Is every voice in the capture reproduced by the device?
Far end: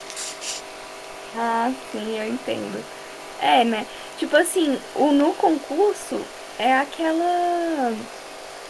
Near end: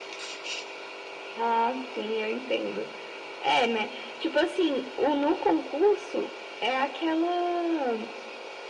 Yes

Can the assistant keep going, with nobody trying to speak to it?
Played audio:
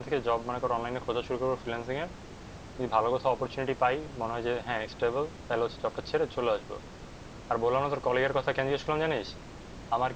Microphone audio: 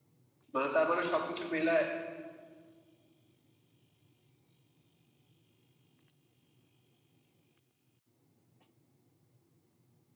No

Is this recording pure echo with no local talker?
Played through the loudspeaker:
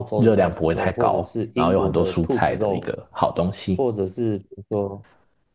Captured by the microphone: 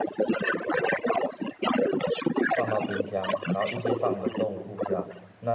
No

